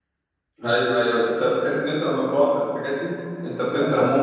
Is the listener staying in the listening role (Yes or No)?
No